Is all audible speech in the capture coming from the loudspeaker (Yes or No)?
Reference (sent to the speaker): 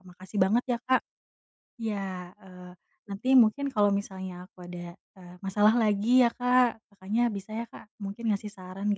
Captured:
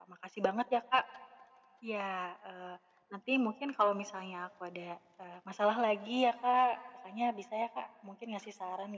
Yes